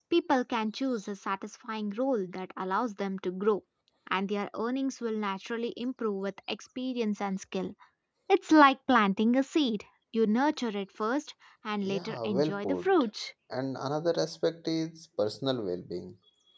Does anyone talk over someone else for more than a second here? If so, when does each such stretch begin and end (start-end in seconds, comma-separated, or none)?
11.8-13.1